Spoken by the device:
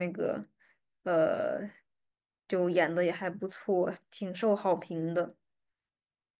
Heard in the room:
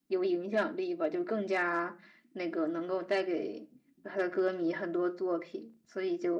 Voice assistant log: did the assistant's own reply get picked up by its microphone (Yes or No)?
No